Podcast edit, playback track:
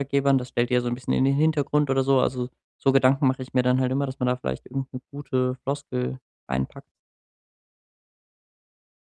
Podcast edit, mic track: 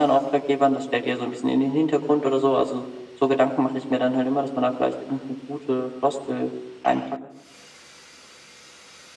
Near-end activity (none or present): none